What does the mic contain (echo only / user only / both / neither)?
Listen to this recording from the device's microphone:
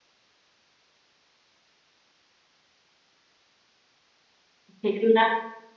user only